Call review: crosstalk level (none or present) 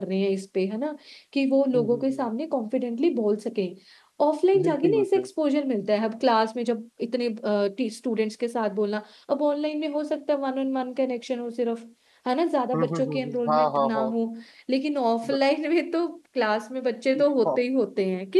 present